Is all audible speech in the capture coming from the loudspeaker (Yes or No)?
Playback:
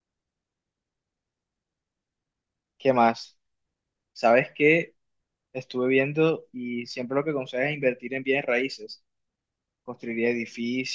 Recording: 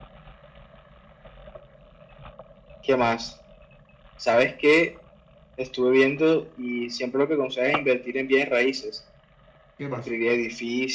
No